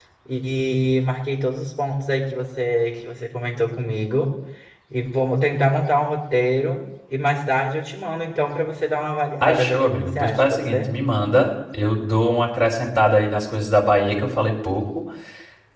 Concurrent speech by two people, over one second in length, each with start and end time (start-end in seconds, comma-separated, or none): 9.4-10.9